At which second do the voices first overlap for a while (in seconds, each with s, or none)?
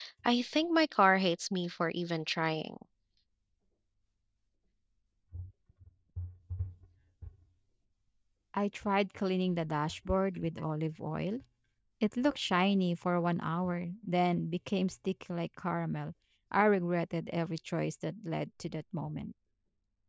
none